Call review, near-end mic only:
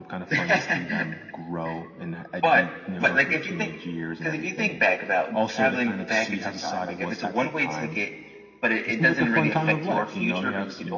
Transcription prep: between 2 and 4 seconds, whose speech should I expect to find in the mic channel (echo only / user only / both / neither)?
echo only